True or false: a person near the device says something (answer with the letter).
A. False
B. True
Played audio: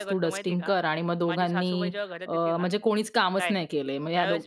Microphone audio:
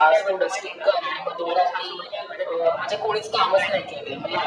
A